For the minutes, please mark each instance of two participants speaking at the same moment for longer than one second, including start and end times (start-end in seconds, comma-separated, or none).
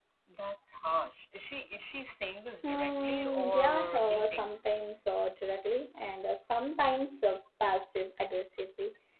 2.6-4.5